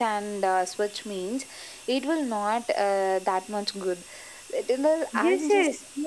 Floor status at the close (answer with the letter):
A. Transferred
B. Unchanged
A